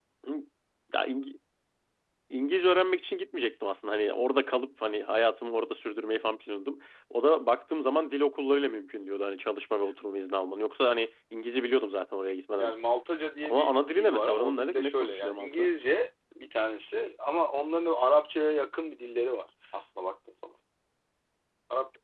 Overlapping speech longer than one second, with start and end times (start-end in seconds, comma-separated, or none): 13.4-15.7